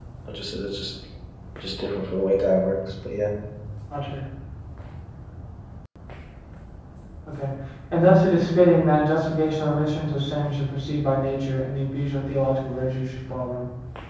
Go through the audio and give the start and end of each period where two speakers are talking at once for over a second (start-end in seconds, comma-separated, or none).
none